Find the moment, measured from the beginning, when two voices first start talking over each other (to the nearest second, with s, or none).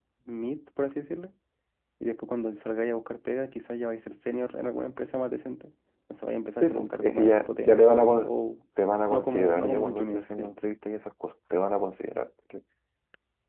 7 s